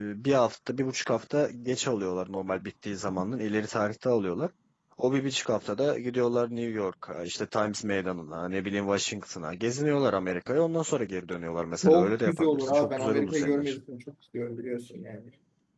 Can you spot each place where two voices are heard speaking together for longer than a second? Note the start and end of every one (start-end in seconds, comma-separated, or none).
11.8-13.8